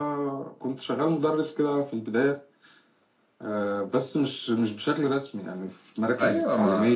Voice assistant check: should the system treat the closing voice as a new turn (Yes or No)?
Yes